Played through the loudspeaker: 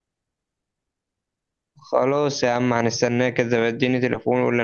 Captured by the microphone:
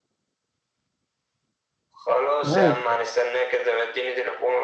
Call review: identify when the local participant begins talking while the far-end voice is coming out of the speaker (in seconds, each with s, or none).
2.4 s